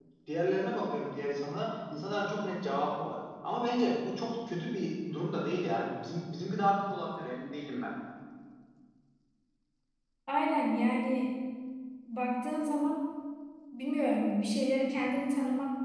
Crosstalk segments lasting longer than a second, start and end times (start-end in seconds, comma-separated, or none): none